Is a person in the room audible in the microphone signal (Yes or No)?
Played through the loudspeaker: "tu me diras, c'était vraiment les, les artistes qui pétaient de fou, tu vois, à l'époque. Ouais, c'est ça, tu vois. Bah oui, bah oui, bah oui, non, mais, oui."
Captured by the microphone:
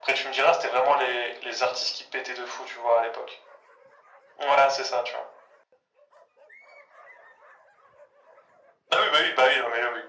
No